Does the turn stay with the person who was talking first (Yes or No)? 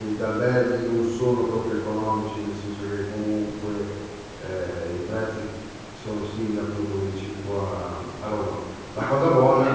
Yes